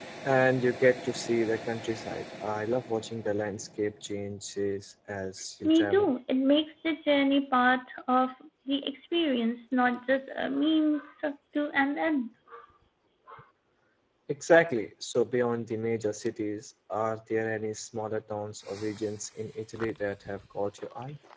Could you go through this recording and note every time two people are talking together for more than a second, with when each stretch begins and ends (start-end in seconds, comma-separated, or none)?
none